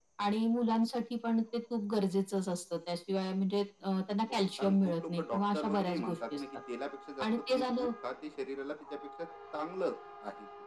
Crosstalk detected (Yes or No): Yes